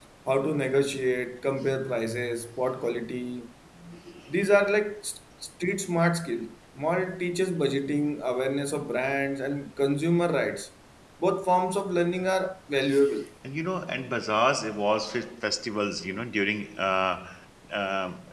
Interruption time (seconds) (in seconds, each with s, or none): none